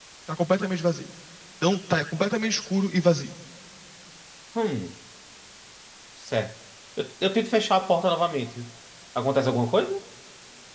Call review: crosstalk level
none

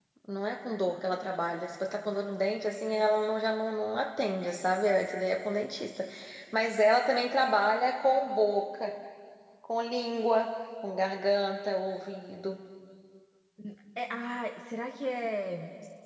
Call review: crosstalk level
none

